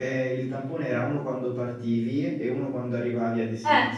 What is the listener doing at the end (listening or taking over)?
taking over